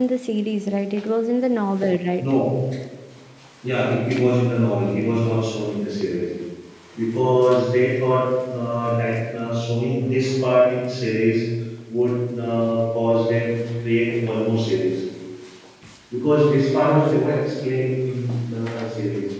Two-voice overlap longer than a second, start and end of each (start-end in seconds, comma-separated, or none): none